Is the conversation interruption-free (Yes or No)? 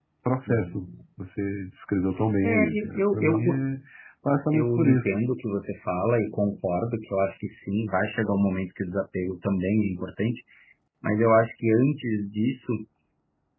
No